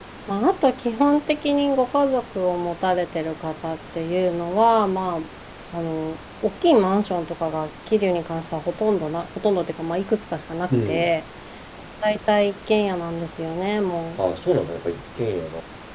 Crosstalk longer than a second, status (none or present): none